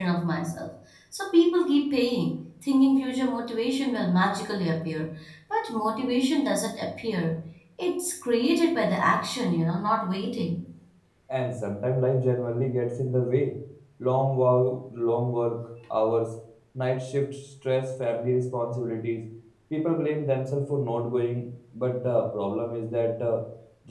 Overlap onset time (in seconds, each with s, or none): none